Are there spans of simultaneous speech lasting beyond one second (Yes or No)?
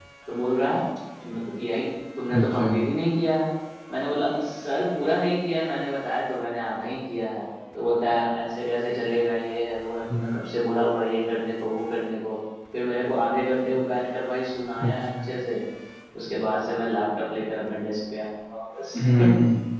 No